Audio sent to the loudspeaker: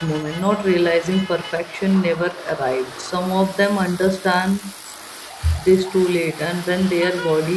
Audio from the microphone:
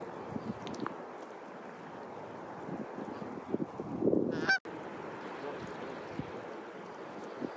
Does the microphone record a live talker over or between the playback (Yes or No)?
No